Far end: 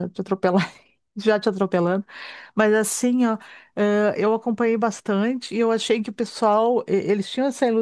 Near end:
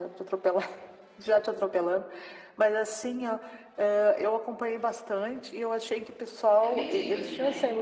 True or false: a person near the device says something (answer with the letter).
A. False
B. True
B